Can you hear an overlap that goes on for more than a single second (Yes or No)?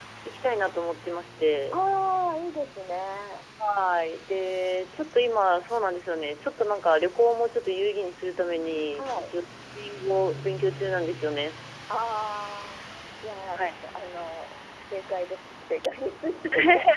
No